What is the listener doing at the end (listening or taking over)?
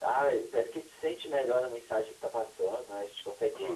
listening